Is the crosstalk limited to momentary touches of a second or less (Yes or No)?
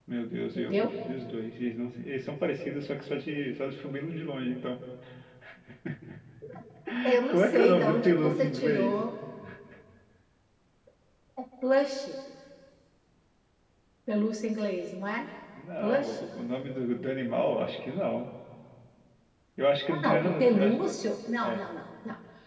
No